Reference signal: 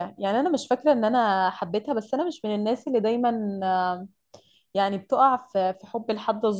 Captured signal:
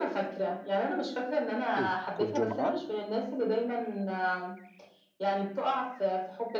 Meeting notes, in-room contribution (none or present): present